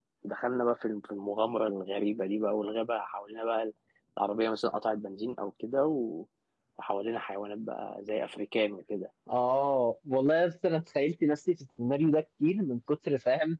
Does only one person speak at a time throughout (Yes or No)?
Yes